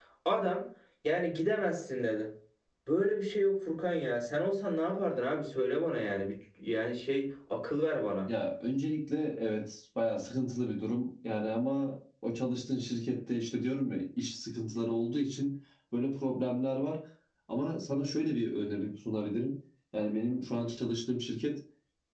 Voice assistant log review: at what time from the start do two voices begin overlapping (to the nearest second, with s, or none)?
none